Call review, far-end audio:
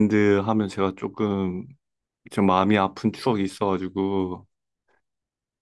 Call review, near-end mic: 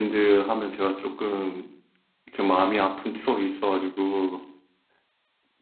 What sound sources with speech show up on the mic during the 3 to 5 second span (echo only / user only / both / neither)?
echo only